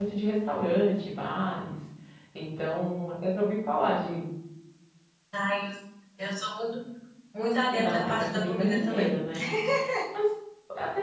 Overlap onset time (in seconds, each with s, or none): 7.7 s